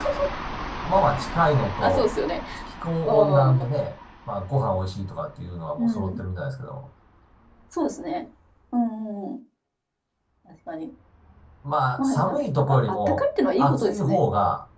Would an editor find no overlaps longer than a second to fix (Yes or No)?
No